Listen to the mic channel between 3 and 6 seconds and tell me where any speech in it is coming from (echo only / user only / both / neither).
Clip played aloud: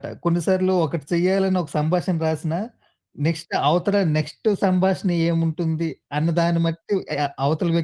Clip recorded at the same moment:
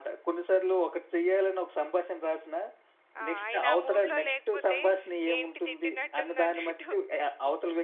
both